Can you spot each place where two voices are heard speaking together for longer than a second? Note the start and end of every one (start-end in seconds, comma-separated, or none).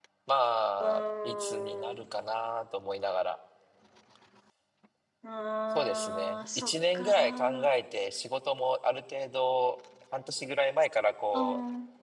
0.8-2.1, 5.8-7.8